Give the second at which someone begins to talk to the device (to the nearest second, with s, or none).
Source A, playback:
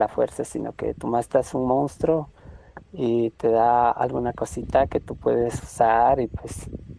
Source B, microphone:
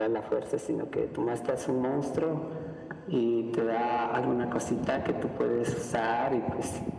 none